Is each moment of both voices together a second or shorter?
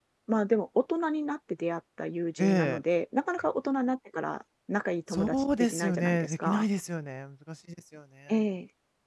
No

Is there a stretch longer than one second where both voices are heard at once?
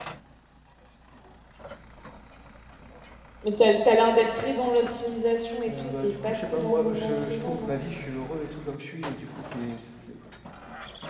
Yes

